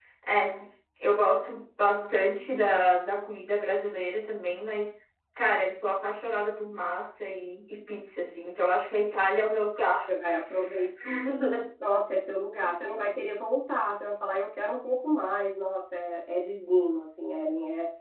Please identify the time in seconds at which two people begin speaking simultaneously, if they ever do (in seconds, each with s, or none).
none